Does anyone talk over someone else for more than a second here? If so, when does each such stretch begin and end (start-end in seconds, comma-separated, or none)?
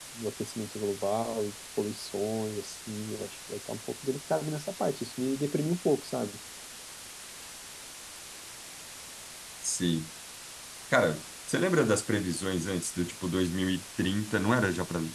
none